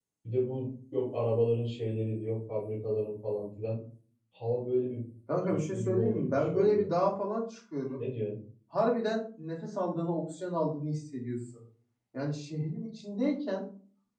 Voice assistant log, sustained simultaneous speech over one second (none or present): present